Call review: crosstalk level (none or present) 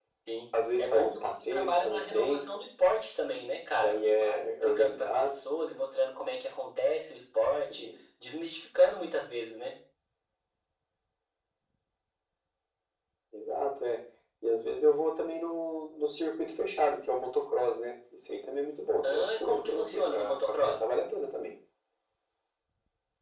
present